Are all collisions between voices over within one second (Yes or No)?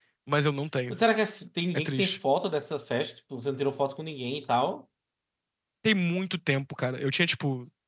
Yes